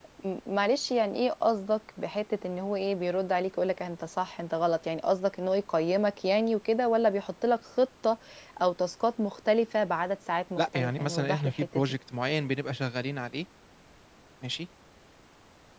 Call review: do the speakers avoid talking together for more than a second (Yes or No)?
No